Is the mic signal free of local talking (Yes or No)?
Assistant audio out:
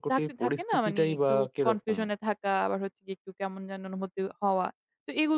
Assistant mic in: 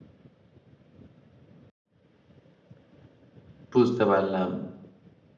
No